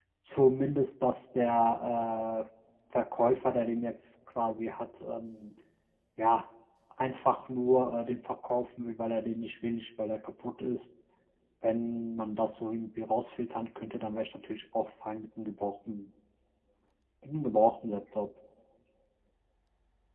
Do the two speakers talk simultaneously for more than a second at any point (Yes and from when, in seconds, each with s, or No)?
No